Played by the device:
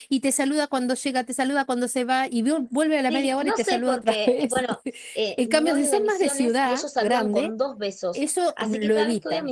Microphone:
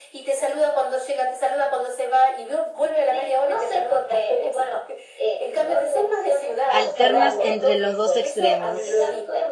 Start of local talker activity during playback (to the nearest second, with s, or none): 7 s